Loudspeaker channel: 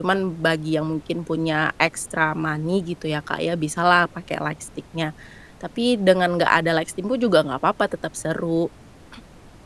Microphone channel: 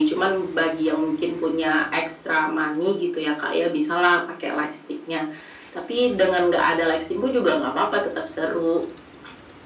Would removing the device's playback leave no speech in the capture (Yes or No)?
Yes